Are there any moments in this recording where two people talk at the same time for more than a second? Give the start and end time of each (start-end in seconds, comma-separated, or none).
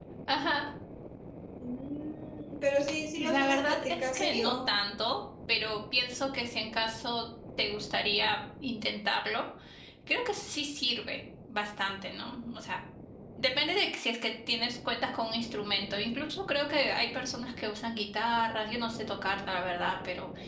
3.2-4.5